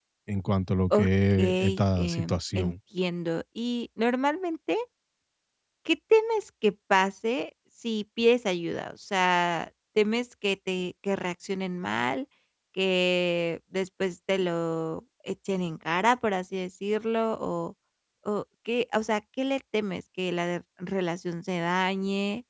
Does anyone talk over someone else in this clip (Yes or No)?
Yes